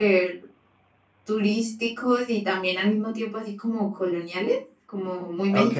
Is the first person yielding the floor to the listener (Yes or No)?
Yes